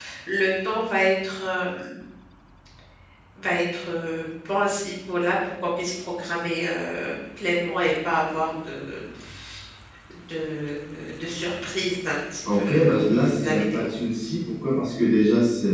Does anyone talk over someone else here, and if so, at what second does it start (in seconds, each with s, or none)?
12.5 s